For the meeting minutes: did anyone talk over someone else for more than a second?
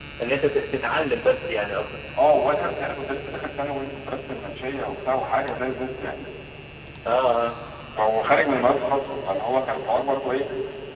No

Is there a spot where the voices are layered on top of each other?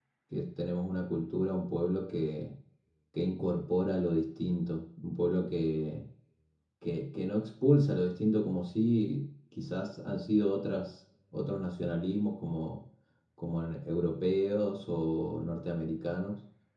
No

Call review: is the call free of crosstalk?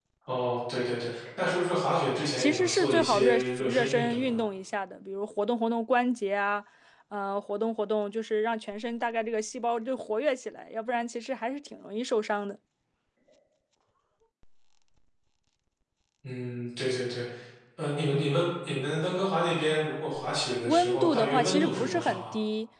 No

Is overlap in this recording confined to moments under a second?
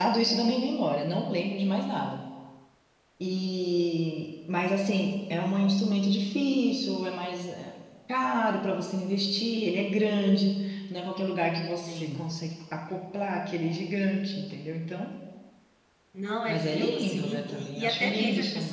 No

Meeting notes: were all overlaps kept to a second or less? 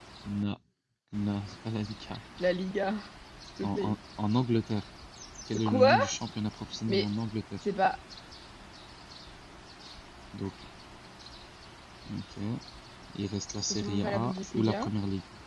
No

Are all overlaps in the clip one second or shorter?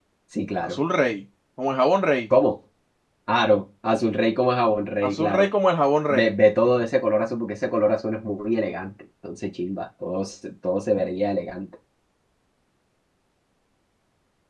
Yes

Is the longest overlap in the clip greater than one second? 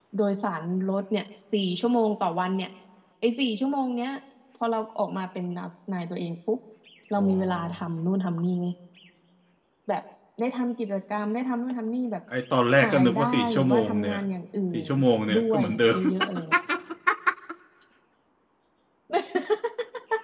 Yes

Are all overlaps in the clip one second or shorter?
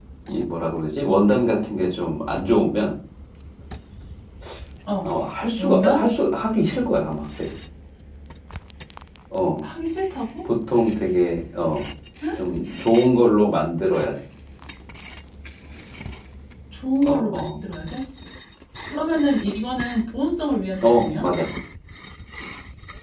Yes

